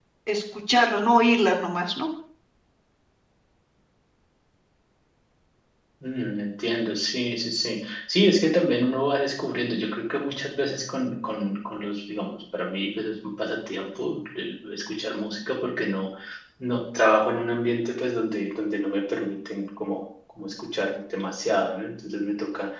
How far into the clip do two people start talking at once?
none

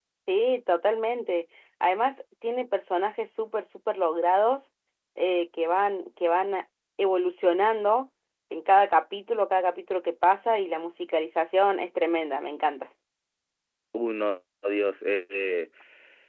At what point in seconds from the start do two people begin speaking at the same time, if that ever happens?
none

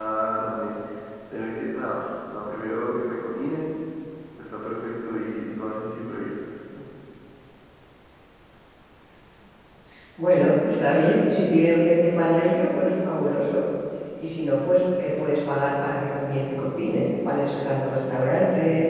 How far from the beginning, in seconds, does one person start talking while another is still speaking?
none

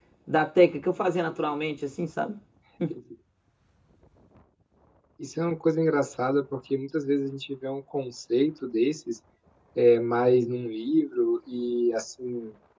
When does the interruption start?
none

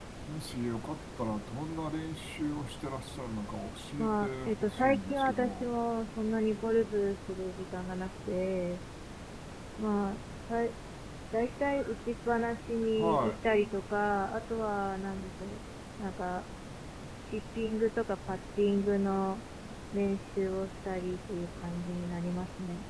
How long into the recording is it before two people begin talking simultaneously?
4 s

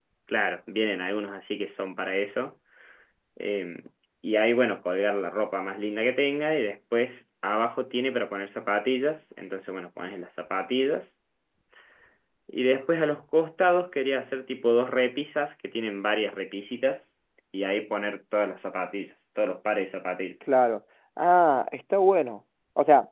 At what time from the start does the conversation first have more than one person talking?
none

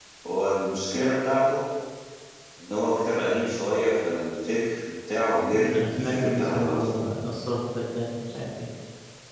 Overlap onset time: 6 s

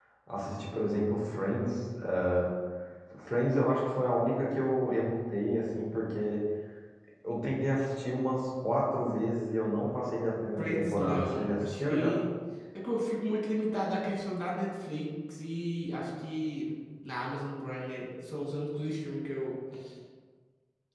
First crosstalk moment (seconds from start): 11 s

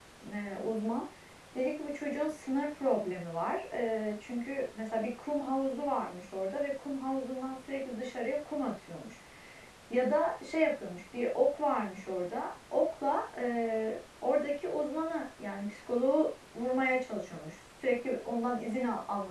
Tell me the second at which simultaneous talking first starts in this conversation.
none

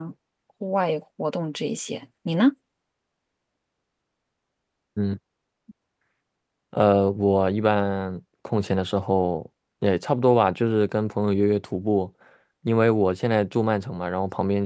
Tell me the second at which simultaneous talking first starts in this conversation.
none

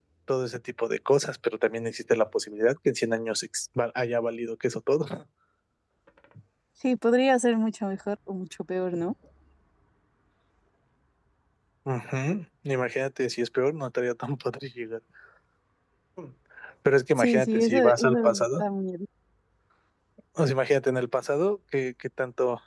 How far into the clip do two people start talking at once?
17 s

